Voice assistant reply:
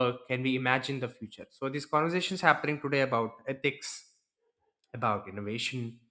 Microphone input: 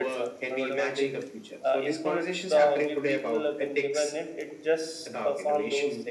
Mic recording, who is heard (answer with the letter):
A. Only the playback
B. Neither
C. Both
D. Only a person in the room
C